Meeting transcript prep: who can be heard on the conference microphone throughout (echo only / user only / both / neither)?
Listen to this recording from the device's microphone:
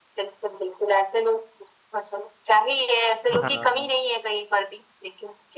both